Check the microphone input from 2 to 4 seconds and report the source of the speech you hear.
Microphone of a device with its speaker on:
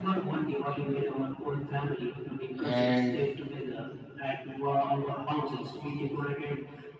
both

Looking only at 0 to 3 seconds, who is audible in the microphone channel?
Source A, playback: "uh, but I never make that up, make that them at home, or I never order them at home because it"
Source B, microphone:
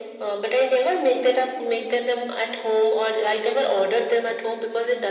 echo only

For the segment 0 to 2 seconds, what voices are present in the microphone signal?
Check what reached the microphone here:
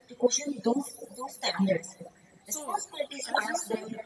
echo only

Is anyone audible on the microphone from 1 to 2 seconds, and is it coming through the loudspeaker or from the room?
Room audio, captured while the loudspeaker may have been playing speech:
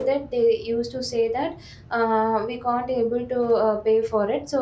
user only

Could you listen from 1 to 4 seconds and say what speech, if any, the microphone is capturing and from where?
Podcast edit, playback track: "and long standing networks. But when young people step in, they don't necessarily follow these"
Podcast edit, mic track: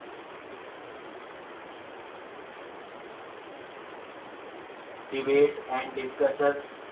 neither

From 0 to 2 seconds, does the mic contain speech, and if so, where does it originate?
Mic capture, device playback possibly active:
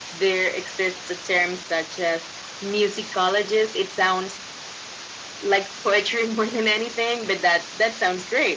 echo only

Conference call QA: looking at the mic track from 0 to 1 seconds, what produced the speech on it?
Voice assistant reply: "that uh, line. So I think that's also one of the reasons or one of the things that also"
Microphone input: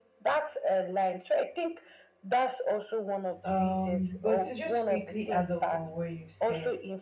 echo only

